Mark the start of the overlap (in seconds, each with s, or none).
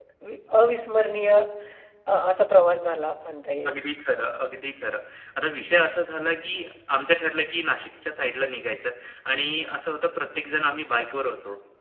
none